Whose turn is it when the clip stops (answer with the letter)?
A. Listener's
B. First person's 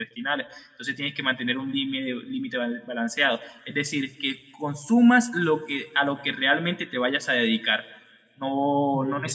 B